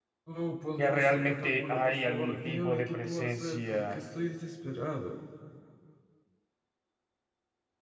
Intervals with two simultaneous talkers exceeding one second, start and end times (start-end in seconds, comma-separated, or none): 0.8-4.0